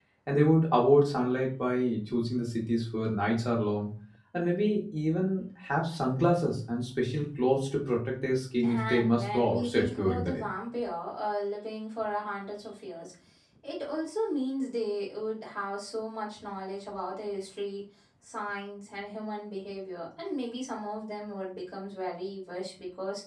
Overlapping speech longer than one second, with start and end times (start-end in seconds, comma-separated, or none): 8.6-10.4